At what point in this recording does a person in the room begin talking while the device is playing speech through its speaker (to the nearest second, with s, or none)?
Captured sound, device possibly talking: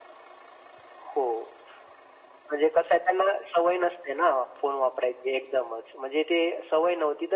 none